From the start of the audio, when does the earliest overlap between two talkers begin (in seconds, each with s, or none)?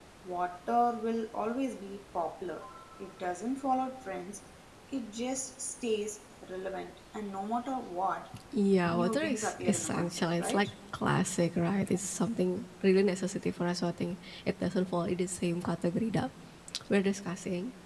8.9 s